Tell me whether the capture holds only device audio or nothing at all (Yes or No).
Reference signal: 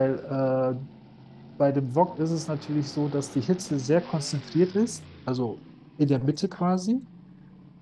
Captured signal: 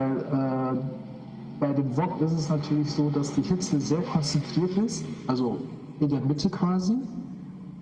Yes